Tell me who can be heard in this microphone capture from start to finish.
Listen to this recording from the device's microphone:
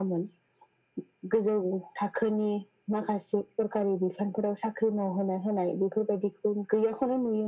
echo only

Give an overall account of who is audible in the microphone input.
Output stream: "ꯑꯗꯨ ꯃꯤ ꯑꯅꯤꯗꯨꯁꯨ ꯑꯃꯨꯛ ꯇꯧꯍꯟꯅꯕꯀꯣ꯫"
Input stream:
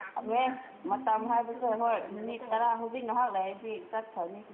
both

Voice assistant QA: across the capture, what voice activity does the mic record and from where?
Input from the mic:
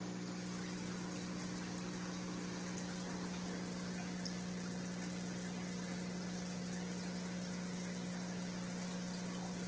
neither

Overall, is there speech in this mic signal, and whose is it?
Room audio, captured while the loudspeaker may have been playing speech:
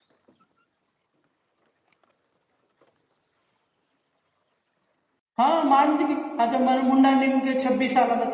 user only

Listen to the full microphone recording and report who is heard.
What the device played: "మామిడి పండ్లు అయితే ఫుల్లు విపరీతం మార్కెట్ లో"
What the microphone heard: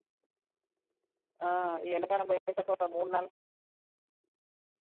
user only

